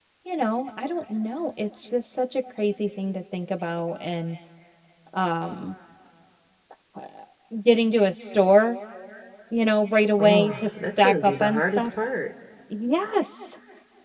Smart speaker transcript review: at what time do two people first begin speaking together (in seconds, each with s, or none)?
10.2 s